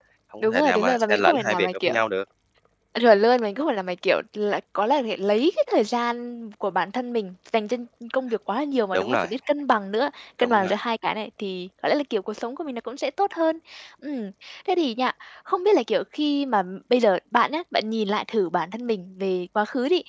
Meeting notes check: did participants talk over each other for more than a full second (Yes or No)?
Yes